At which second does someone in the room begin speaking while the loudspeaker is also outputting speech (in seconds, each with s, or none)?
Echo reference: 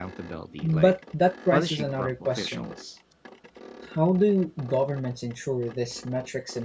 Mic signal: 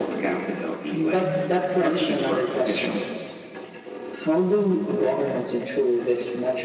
none